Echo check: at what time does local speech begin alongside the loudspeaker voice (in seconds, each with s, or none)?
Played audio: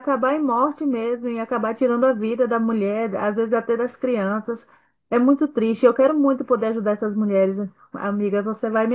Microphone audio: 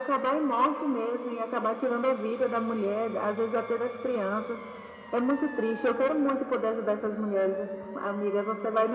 none